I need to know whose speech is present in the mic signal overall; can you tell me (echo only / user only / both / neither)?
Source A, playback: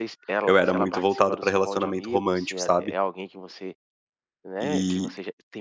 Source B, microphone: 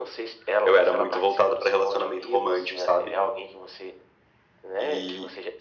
echo only